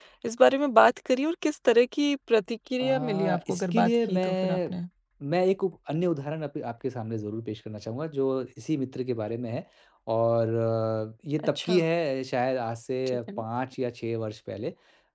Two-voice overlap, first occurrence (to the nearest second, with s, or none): 3 s